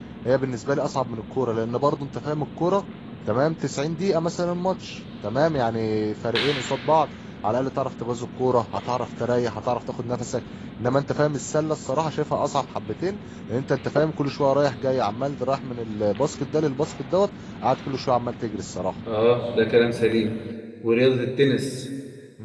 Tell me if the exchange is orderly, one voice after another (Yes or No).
Yes